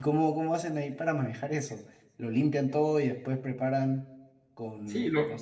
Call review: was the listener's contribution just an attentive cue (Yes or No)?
No